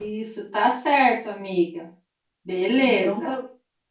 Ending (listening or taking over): taking over